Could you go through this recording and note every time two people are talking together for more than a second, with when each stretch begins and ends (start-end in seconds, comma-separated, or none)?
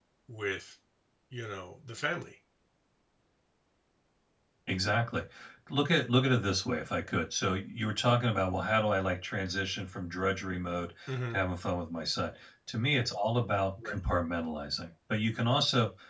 none